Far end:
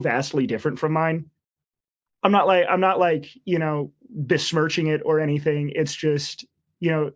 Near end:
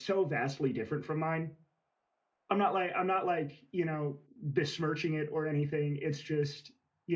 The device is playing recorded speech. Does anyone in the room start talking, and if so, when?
none

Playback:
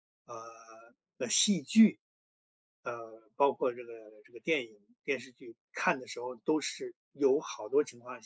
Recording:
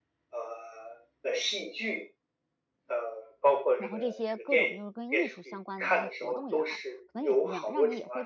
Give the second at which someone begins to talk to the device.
3.8 s

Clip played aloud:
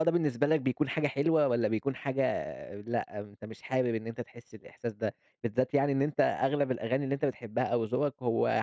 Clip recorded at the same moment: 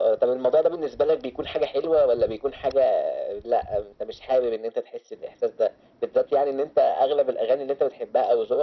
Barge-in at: none

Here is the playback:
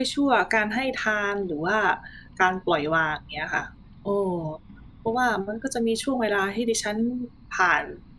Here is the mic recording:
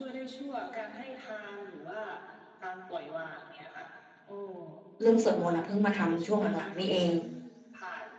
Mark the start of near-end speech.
5.0 s

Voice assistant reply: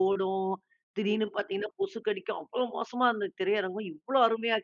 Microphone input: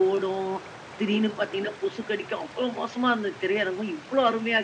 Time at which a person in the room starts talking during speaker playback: none

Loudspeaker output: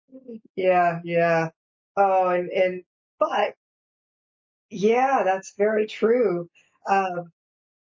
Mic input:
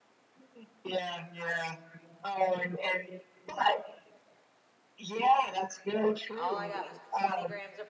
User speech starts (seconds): 6.3 s

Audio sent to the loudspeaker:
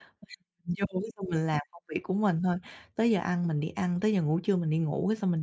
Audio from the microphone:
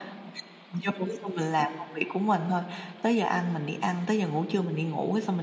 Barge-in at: none

